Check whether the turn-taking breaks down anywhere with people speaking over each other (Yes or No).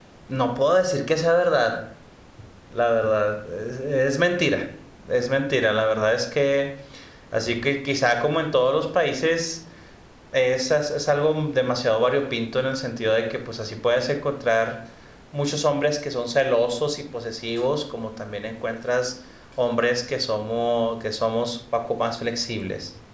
No